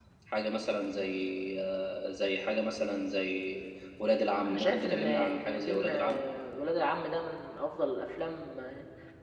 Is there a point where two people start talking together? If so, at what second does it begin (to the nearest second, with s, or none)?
5 s